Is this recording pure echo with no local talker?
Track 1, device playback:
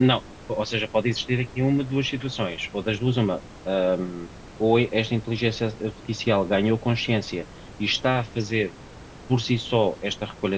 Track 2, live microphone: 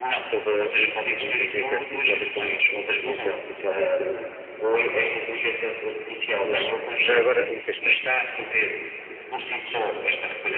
No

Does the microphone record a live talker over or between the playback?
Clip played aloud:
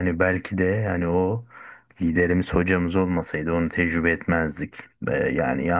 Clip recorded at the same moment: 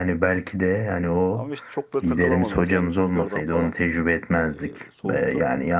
Yes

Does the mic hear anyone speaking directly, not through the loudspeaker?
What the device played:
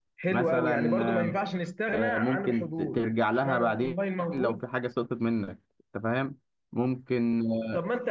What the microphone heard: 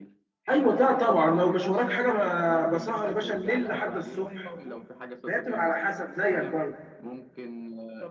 Yes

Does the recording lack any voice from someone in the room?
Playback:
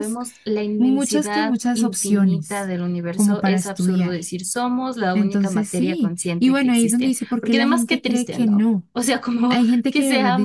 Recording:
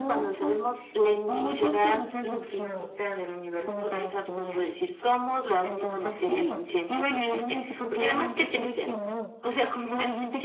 Yes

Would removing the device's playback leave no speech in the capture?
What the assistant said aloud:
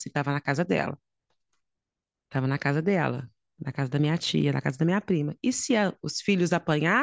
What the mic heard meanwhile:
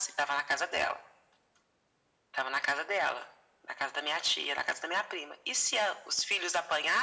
Yes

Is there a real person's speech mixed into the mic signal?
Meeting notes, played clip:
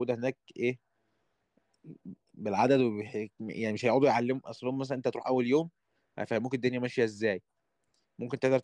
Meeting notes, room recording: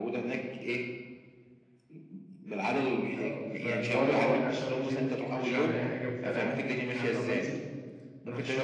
Yes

